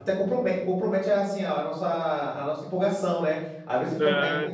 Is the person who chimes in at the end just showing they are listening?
Yes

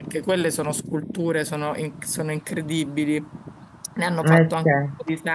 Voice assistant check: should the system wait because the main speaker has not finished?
Yes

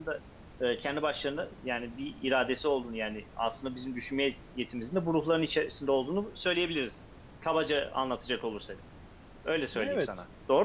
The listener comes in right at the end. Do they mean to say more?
Yes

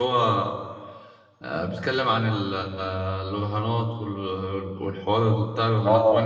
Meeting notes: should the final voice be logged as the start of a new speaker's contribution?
Yes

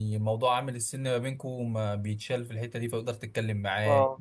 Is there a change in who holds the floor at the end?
No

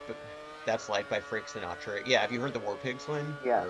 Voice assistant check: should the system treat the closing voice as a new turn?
Yes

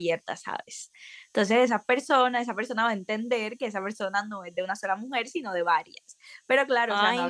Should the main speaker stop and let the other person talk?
No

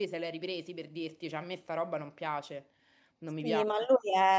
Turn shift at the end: Yes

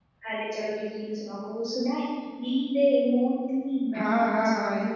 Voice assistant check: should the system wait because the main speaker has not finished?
No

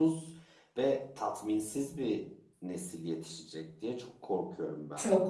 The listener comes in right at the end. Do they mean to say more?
Yes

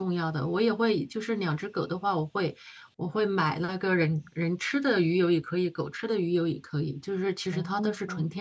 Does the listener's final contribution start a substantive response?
No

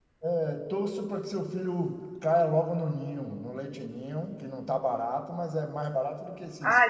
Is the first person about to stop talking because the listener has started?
Yes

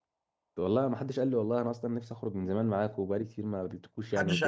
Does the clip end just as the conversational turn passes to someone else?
Yes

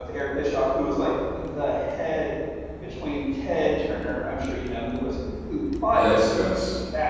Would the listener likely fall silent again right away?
Yes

